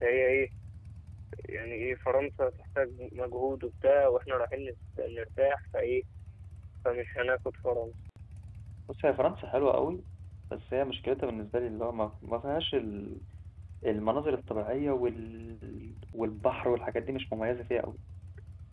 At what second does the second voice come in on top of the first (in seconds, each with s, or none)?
none